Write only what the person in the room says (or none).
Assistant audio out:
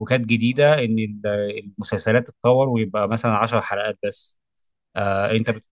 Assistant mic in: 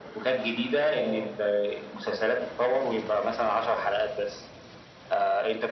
اه